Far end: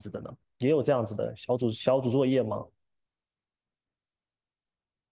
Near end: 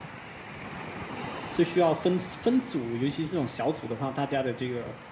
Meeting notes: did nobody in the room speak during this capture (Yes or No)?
No